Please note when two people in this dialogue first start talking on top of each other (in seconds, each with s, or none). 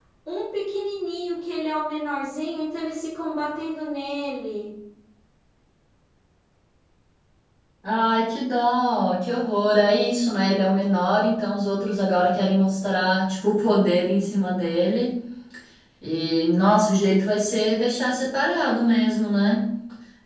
none